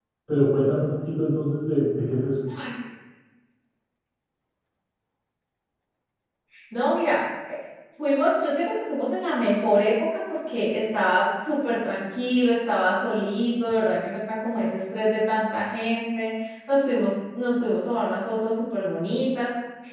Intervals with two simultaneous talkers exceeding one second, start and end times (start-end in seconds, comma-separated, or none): none